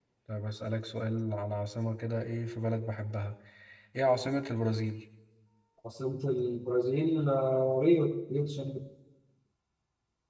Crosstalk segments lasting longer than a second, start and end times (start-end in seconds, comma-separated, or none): none